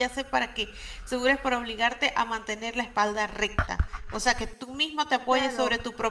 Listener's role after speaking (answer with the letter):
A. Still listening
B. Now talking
B